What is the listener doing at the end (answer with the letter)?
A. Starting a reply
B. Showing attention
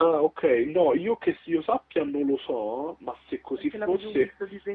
A